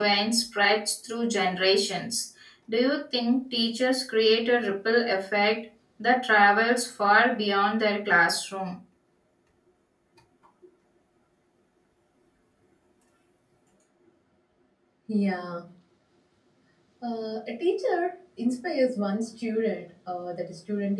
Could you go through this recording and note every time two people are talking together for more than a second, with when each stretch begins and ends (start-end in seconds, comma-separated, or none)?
none